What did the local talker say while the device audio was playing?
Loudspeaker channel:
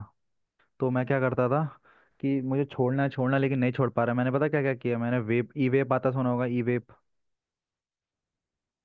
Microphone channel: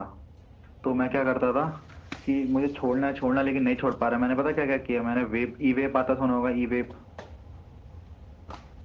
none

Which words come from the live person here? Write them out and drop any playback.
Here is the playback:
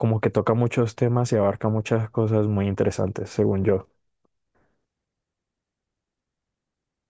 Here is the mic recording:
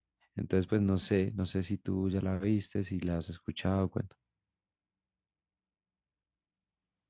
Entonces, pues no sé, no sé si tú ya la viste, si la has escuchado, cuento.

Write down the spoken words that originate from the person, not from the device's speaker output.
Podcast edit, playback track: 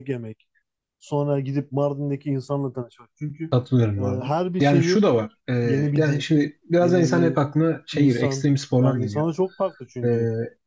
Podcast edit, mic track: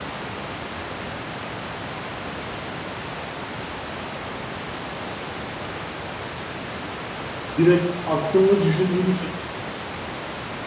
Direkt aklımda düşündüğümü

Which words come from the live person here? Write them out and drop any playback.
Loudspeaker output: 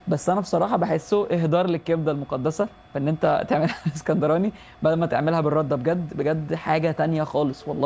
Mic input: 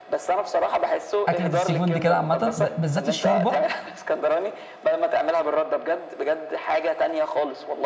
اكله السي فود دي كده عامه ب... بالذات الشوربه

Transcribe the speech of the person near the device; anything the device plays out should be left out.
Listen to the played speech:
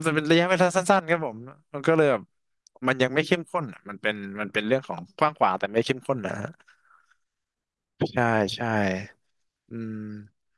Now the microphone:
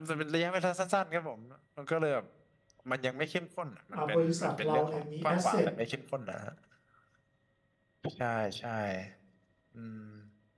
อ่าบริษัทเราเนี่ยมี asset

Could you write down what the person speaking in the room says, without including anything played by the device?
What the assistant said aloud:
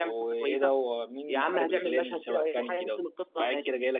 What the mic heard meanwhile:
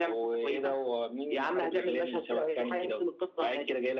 none

